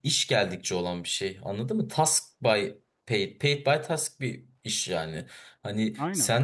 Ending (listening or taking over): listening